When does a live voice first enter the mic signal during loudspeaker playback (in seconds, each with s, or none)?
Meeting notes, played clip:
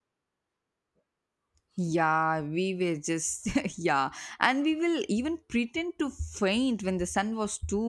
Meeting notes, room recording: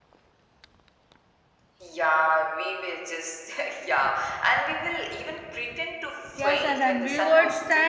6.3 s